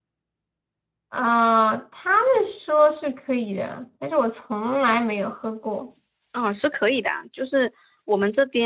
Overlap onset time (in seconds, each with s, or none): none